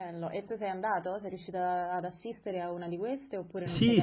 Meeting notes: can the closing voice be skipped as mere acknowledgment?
No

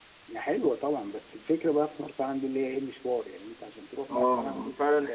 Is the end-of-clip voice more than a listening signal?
Yes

